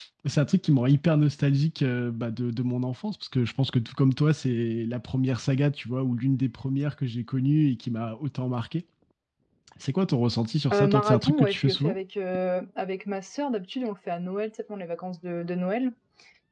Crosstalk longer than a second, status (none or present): present